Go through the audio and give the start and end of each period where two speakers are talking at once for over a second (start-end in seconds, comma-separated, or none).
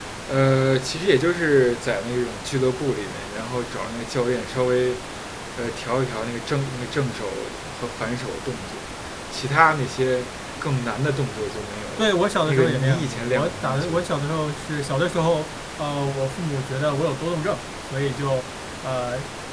12.5-14.1